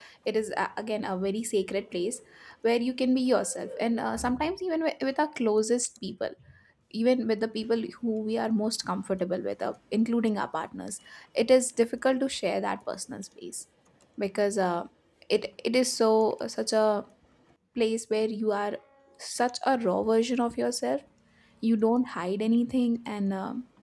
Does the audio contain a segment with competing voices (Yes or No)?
No